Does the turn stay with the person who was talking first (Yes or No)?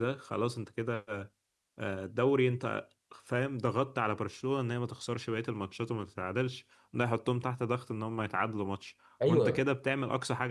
Yes